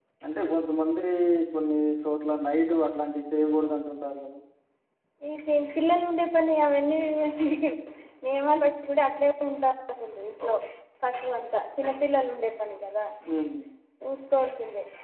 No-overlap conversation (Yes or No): Yes